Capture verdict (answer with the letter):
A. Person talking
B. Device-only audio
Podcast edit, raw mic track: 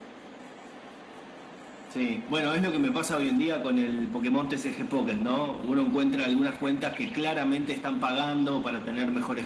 B